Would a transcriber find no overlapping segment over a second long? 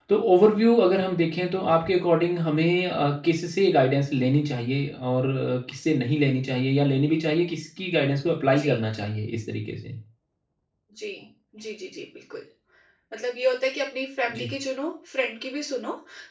Yes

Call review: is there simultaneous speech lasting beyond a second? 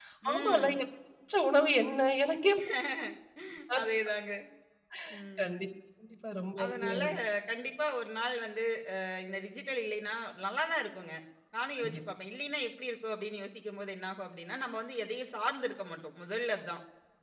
No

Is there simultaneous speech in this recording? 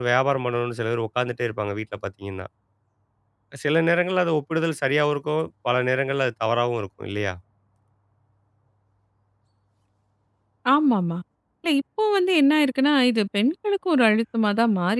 No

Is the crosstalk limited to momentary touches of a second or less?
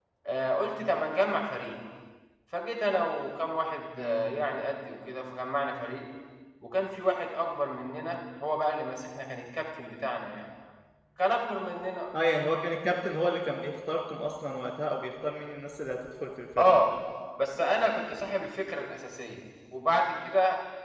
Yes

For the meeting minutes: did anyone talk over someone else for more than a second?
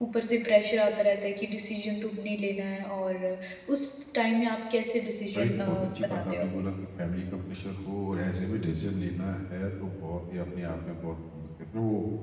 Yes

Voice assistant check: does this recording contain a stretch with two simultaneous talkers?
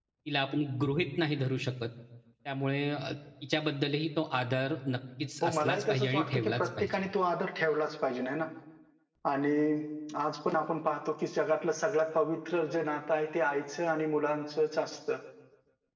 Yes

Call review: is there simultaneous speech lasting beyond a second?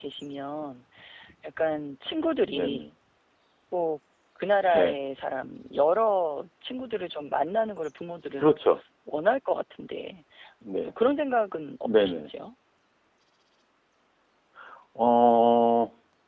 No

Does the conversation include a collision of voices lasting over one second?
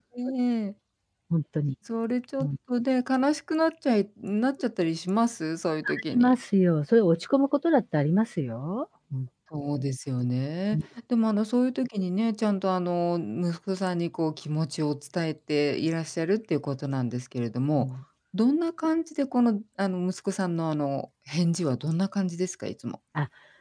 No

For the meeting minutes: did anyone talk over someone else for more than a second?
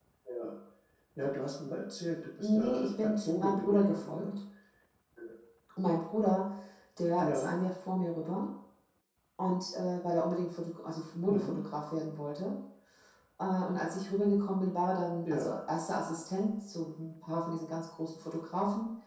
Yes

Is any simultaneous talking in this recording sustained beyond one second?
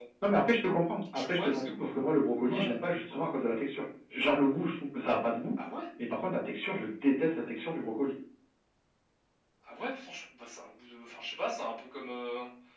No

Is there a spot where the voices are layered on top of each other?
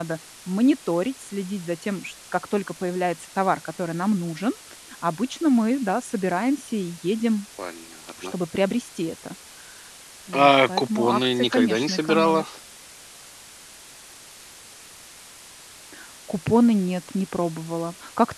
Yes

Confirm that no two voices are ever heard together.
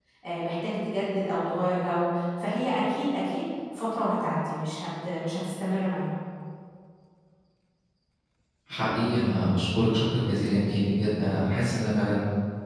Yes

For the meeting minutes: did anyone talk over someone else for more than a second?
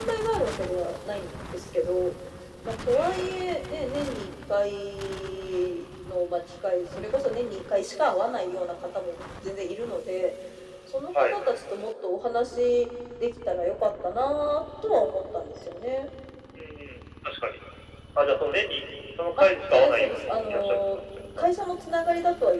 Yes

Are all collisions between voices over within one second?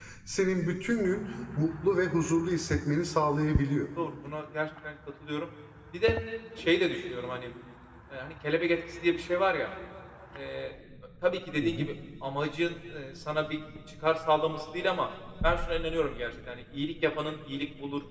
Yes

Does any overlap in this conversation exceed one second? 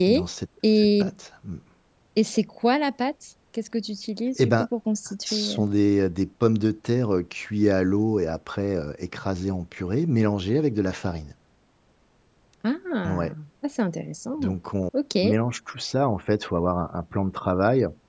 No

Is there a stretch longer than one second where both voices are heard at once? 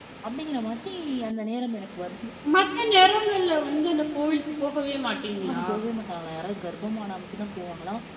No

